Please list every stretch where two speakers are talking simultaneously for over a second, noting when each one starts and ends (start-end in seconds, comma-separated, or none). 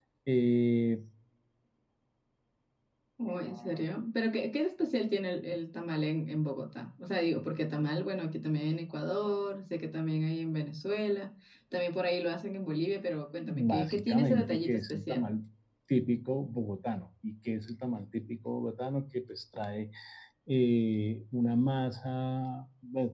13.4-15.3